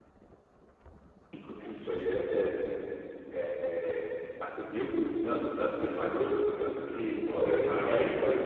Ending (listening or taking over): taking over